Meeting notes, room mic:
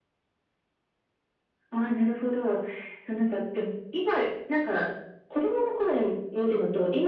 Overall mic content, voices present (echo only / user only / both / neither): echo only